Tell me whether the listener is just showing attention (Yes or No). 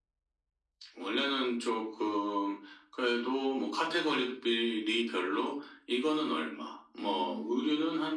Yes